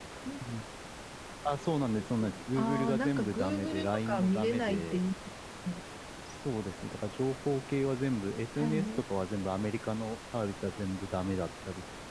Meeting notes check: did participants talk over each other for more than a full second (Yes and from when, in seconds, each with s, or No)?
Yes, from 2.6 s